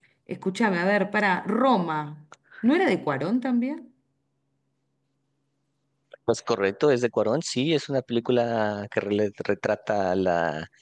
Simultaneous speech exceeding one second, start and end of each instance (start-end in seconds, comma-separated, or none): none